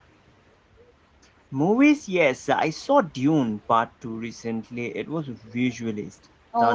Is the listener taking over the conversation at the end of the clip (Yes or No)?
Yes